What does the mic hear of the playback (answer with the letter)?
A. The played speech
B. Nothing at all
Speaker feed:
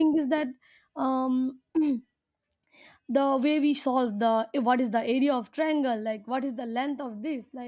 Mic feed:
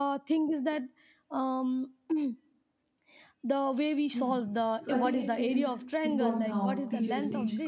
A